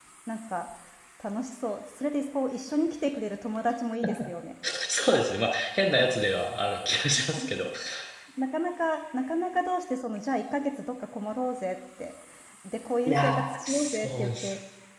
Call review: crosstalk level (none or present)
present